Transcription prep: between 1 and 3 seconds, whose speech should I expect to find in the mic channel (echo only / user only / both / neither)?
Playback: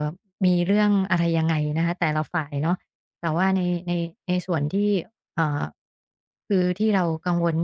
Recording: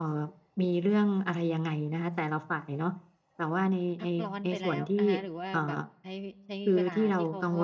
echo only